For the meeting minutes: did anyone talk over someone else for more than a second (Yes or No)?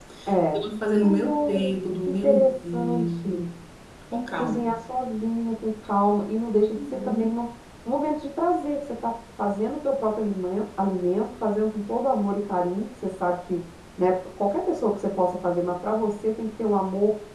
Yes